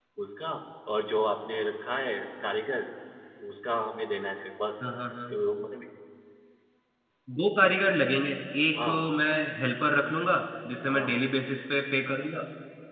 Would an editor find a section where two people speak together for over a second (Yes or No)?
No